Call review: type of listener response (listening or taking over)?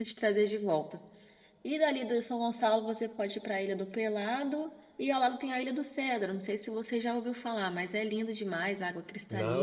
taking over